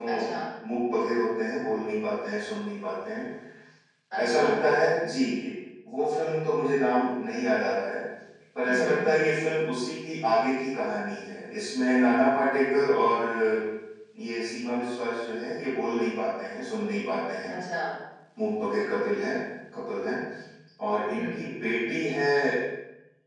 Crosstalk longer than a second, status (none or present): none